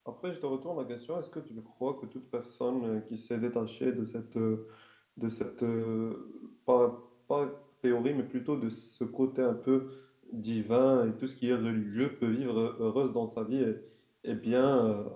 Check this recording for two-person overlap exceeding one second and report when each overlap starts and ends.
none

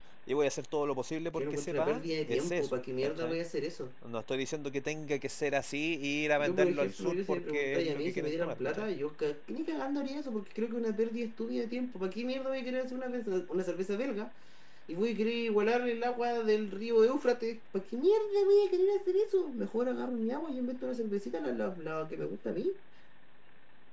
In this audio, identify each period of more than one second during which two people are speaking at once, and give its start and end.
1.3-3.4, 6.4-8.9

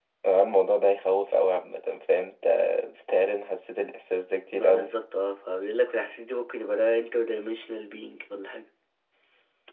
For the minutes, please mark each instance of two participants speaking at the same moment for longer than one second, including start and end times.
none

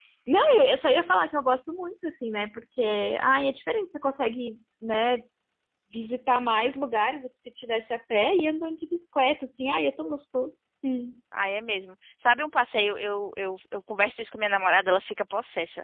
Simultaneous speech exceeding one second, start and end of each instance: none

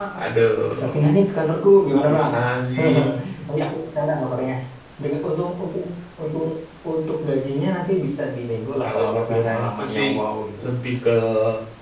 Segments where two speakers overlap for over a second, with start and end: 8.8-10.1

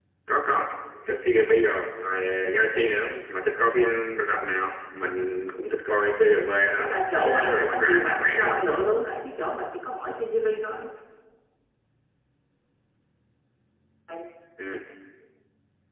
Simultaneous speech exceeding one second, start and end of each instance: 6.8-8.6

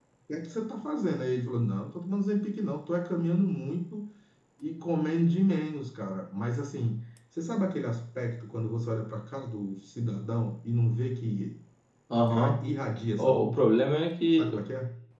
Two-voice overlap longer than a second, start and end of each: none

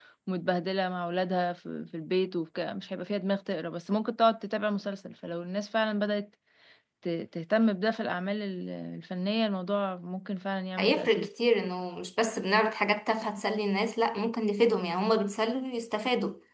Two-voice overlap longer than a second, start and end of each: none

